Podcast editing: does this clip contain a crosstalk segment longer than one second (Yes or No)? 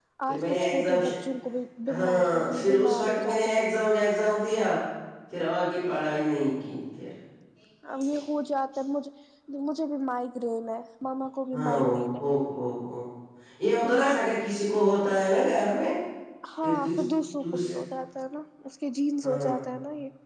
Yes